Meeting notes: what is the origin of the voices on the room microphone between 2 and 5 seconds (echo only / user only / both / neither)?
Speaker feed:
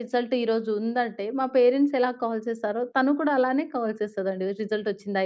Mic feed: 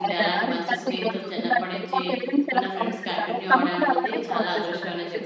both